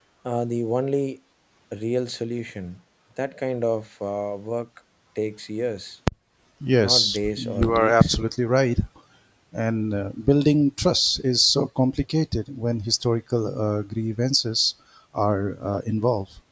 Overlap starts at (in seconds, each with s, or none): 6.8 s